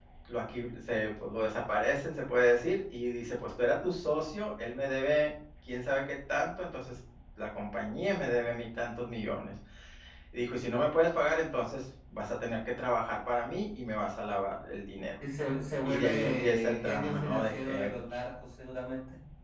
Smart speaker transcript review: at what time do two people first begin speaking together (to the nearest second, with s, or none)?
16 s